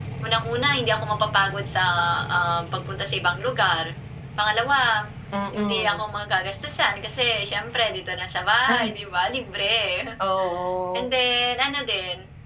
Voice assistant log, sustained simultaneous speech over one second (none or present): none